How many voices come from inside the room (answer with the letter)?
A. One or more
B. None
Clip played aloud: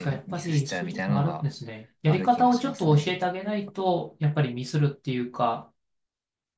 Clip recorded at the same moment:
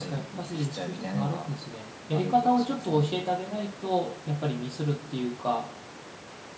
B